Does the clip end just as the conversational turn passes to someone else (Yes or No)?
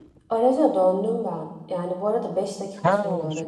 No